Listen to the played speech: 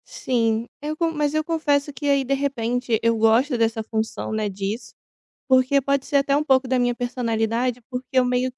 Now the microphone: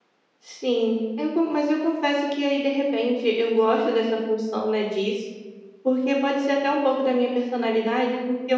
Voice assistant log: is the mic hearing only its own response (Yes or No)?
Yes